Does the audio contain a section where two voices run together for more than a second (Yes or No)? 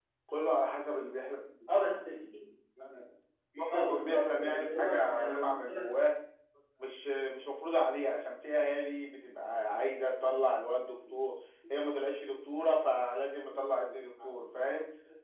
Yes